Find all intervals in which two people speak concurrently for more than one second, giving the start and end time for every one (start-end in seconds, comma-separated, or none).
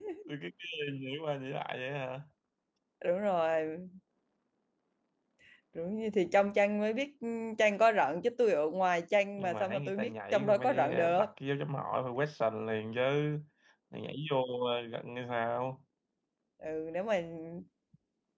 9.4-11.2